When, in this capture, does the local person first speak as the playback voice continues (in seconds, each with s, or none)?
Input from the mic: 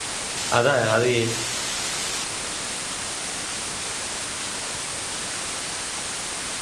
0.6 s